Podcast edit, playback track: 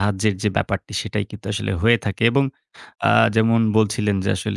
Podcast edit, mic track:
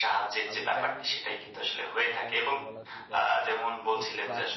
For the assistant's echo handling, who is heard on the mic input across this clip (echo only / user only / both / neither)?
both